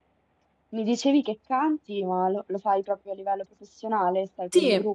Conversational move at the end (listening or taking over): taking over